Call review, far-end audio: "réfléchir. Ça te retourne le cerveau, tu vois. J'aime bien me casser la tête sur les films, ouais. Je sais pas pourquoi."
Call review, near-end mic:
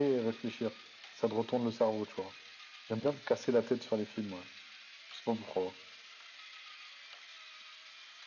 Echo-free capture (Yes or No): No